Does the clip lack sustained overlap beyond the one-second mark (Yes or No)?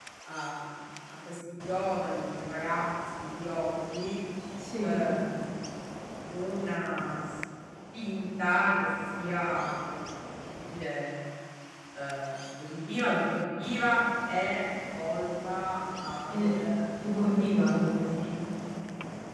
Yes